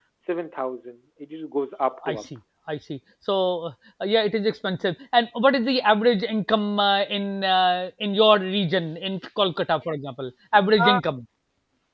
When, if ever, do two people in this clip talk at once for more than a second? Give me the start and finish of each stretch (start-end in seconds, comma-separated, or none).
none